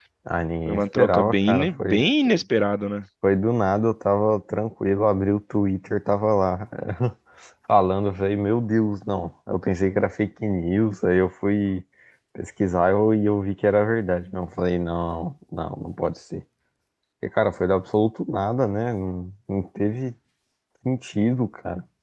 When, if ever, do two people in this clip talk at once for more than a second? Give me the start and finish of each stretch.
0.7-2.0

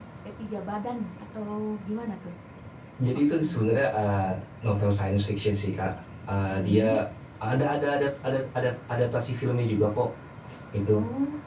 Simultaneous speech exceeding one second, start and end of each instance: none

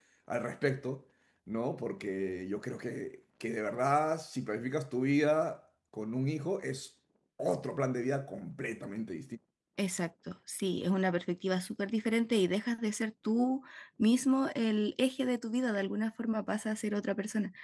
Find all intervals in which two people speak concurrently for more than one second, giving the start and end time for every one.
none

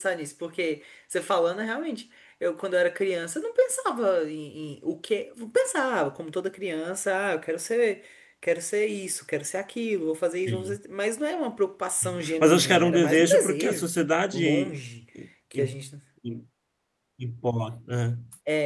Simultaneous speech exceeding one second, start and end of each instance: 12.0-13.9

